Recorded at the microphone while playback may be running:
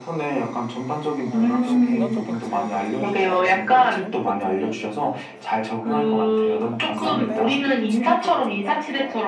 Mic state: both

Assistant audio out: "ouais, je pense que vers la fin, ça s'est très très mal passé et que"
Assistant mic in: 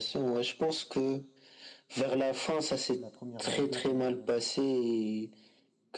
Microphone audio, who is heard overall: both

